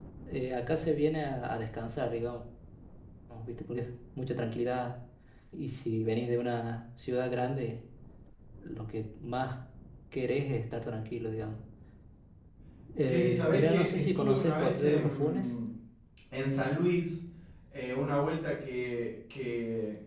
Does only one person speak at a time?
No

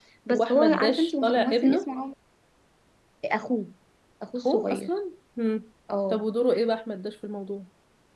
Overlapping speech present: Yes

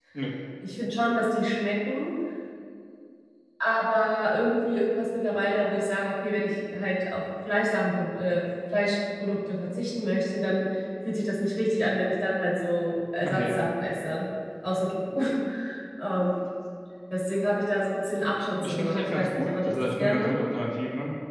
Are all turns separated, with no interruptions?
No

